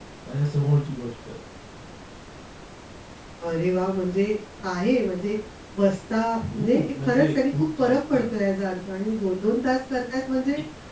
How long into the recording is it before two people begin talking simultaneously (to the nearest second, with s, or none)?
7 s